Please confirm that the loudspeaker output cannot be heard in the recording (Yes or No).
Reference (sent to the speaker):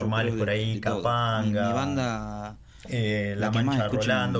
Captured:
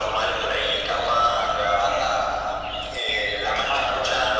No